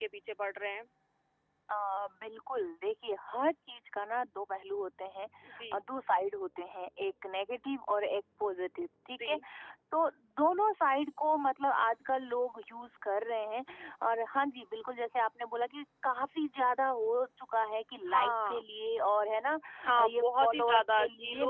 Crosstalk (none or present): present